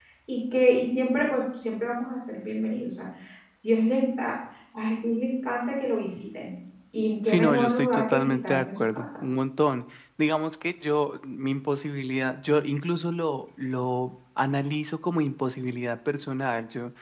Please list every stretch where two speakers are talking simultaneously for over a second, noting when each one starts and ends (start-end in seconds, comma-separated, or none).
7.2-9.1